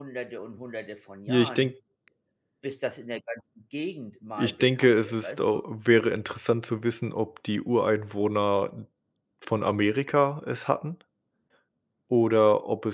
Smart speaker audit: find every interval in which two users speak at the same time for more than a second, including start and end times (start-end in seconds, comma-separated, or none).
4.4-5.6